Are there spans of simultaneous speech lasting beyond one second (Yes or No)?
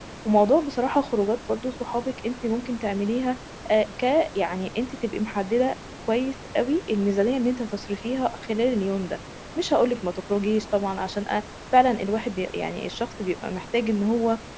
No